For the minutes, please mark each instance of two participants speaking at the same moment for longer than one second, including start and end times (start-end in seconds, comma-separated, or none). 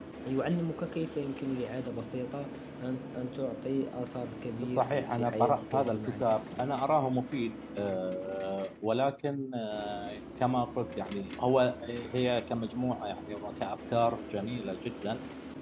4.8-6.2